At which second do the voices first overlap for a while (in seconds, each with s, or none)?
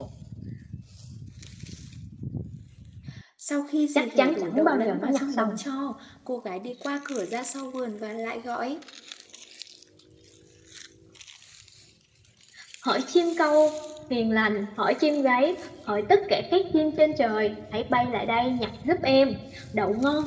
4.0 s